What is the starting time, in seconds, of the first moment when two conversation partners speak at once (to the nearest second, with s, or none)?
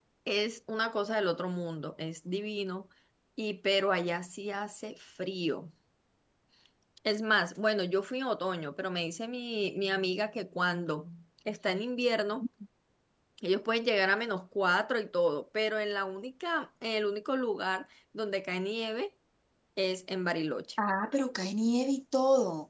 none